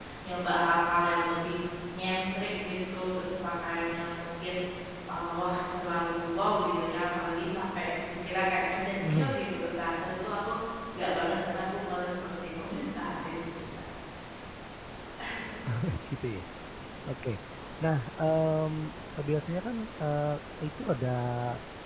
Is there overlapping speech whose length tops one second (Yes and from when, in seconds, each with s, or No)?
No